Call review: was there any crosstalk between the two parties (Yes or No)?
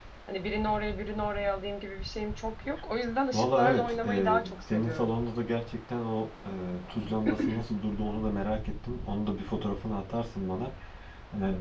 Yes